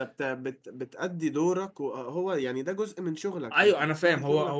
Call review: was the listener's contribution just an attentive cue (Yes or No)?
No